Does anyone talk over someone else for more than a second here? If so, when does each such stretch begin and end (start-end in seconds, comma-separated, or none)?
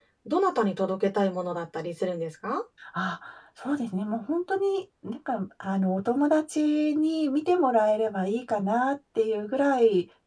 none